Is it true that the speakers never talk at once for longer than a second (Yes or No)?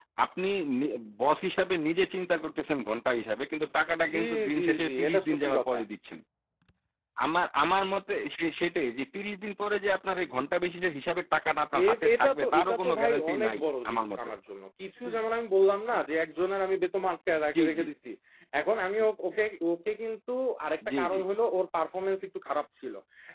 No